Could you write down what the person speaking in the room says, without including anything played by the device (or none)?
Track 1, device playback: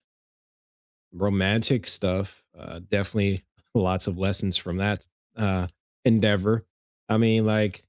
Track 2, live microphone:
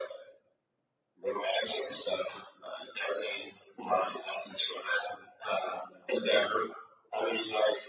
none